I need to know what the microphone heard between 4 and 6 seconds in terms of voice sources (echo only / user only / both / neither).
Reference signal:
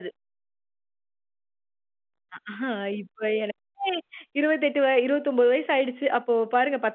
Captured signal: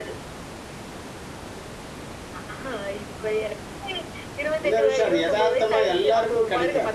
both